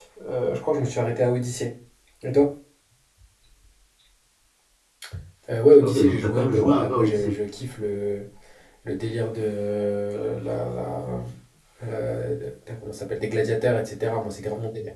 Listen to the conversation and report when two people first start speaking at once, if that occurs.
6 s

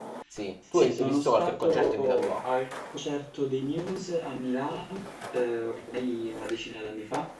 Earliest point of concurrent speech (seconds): 1 s

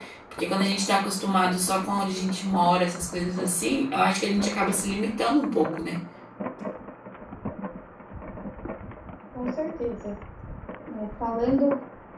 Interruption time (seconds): none

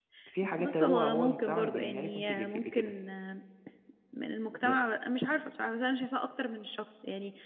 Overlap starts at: 1 s

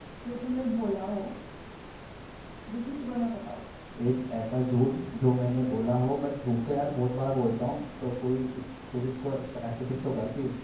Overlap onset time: none

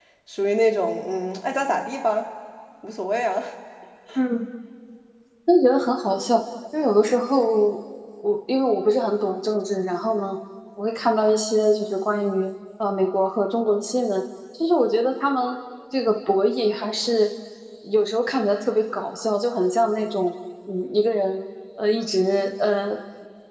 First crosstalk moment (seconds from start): none

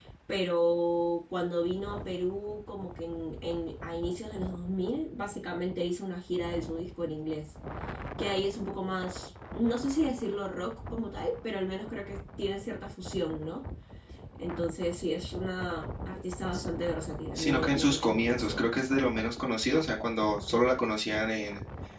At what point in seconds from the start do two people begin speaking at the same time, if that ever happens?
17 s

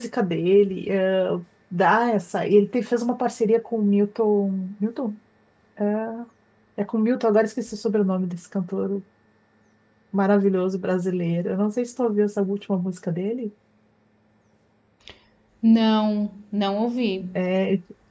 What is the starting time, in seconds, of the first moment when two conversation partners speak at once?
none

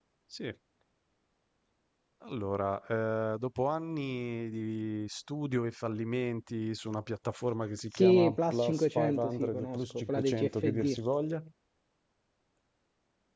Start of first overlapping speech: 8 s

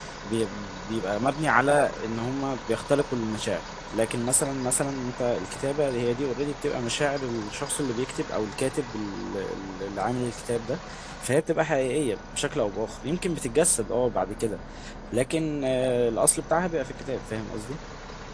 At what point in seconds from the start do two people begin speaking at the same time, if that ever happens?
none

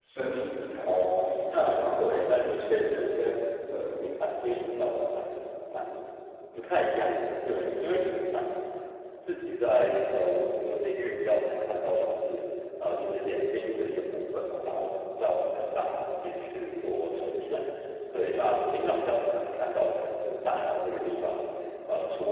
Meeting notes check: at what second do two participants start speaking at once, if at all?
1 s

